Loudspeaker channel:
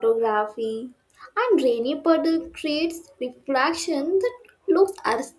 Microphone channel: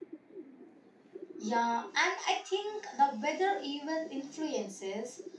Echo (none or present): none